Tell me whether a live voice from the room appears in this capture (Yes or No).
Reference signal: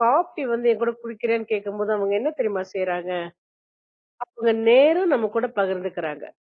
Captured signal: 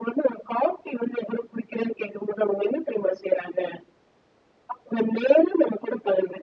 No